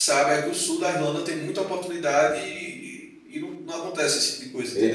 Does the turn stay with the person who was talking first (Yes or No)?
No